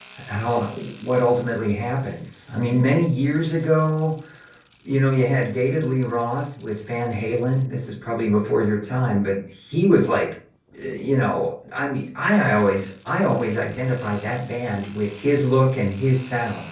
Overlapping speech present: No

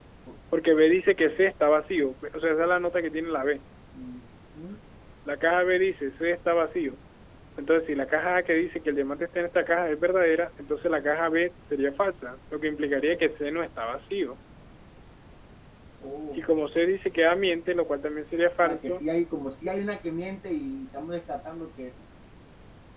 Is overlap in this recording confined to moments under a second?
Yes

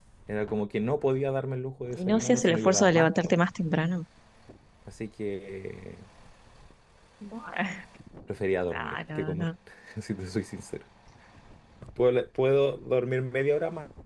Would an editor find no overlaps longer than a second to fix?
No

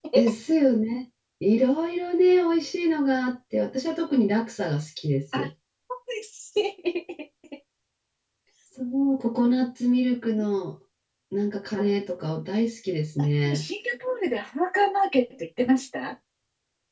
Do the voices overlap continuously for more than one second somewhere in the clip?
No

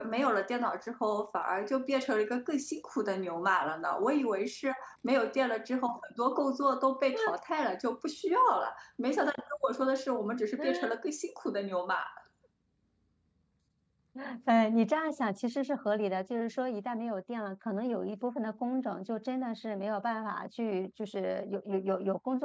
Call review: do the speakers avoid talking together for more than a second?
Yes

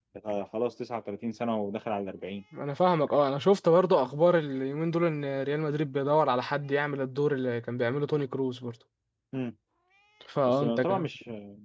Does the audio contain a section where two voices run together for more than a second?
No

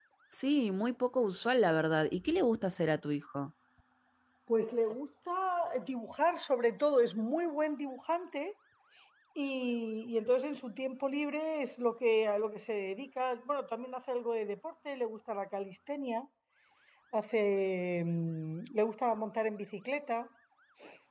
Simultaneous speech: No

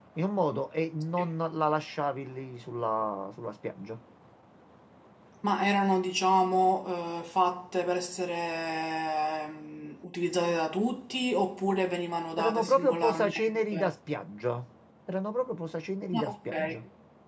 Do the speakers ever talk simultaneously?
Yes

